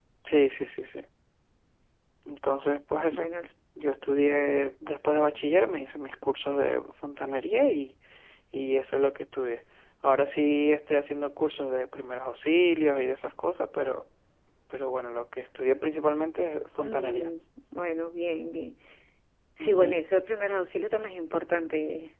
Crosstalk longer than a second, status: none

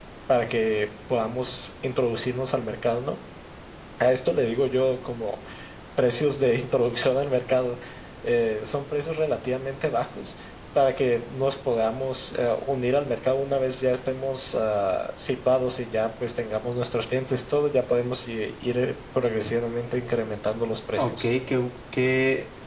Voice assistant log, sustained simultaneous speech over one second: none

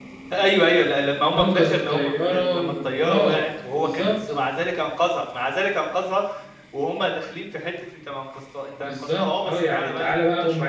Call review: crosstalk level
present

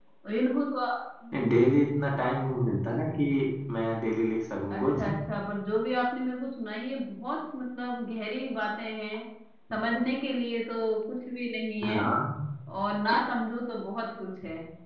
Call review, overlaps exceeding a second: none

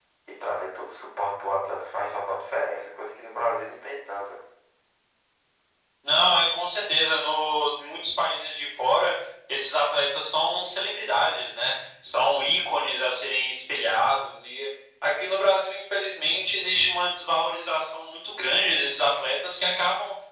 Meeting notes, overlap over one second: none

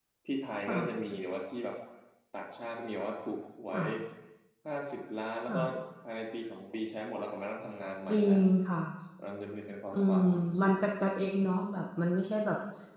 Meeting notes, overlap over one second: none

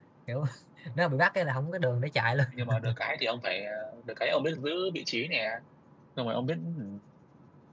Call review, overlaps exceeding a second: none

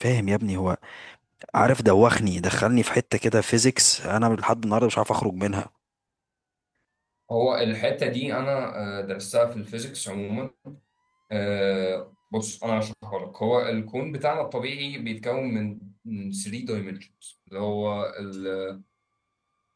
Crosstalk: none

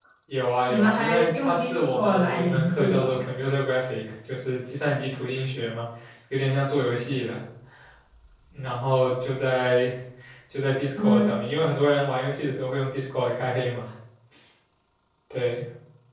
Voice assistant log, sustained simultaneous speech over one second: present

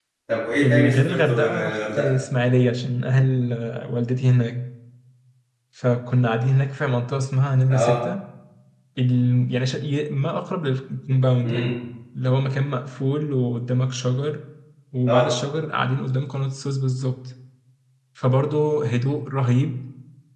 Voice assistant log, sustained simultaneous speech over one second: present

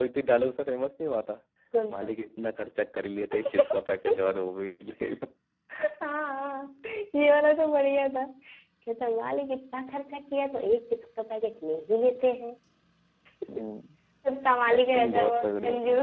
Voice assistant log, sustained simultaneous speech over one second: present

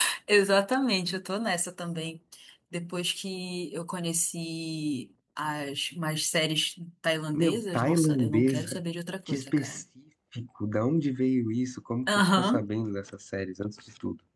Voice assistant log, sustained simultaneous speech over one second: present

